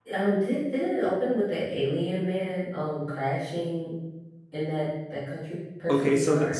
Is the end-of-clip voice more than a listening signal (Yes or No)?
Yes